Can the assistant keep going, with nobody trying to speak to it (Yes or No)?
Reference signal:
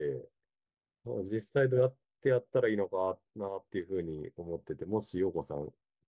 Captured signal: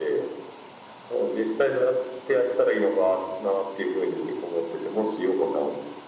Yes